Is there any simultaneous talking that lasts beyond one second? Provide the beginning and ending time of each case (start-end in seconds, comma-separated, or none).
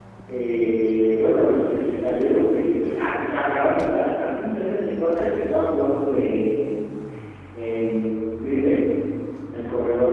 none